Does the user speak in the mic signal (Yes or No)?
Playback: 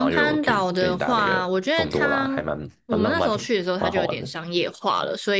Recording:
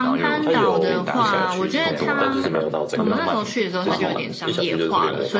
Yes